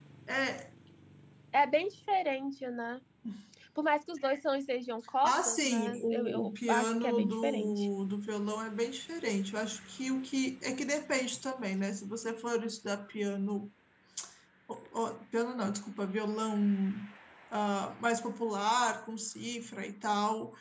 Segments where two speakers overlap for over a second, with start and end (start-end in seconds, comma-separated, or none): 5.2-7.9